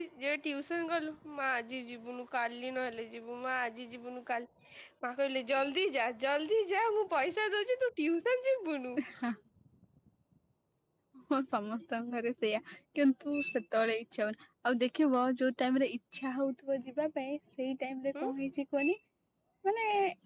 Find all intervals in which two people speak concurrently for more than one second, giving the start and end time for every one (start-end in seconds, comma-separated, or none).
none